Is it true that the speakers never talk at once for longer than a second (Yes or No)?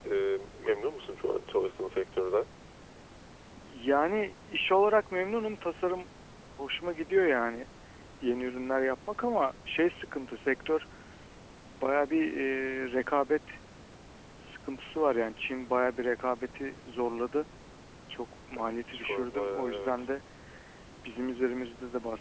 No